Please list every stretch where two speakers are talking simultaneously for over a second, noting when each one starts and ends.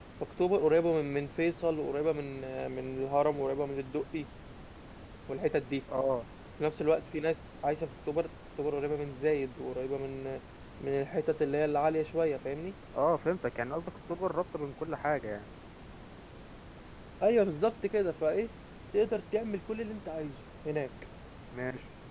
none

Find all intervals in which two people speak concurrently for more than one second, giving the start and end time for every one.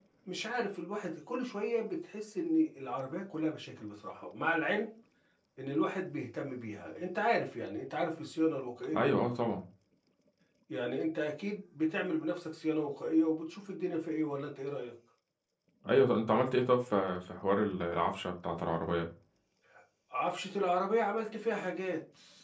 none

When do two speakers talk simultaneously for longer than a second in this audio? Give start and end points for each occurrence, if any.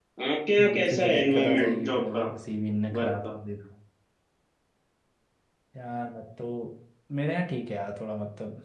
0.6-2.2

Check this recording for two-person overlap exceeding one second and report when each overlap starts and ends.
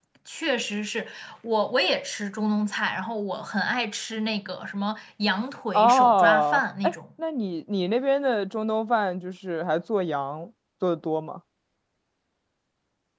5.7-6.9

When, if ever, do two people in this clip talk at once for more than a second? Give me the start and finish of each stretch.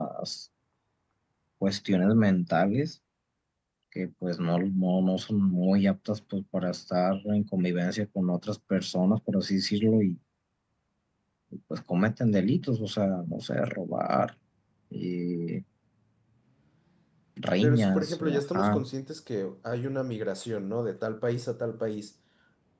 17.6-18.8

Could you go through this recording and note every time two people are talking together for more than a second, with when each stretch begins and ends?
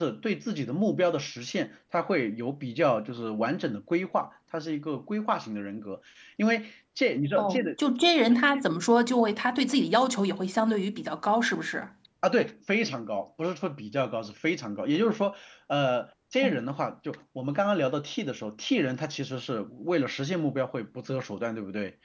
none

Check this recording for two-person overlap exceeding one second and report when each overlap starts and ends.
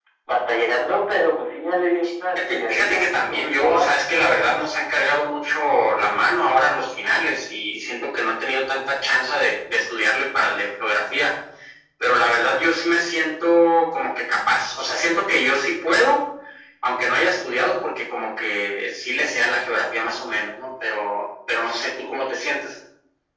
2.5-3.9

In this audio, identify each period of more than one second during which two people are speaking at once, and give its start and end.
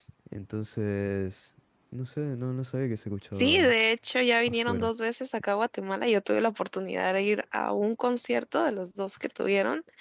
none

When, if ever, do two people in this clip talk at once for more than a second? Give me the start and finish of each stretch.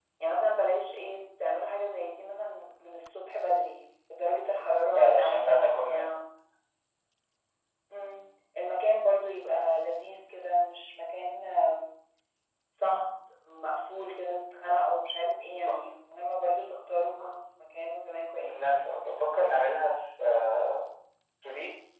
4.9-6.2

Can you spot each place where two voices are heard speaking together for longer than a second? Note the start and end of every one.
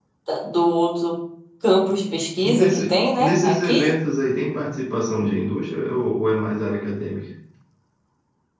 2.4-3.8

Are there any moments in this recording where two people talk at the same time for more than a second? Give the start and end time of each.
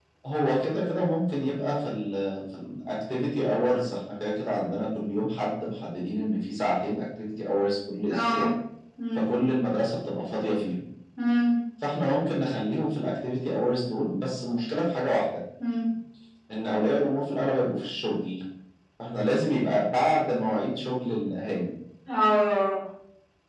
none

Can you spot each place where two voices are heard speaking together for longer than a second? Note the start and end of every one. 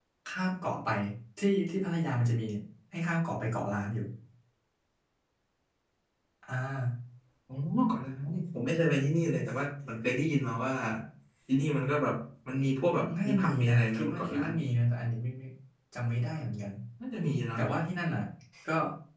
13.2-14.5

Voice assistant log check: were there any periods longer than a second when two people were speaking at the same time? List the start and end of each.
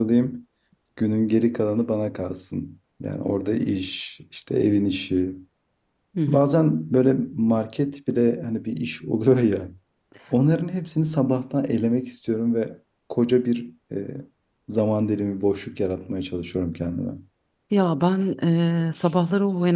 none

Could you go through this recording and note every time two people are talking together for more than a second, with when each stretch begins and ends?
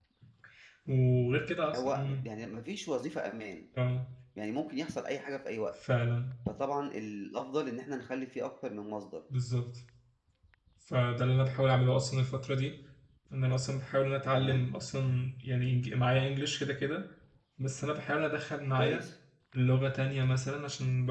none

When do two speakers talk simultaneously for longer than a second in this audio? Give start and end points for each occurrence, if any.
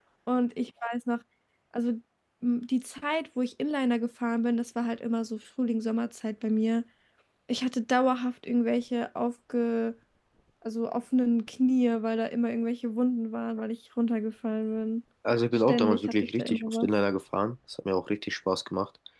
15.5-16.9

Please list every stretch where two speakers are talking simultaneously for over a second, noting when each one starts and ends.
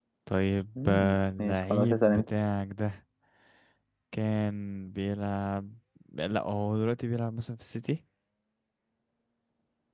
0.8-2.2

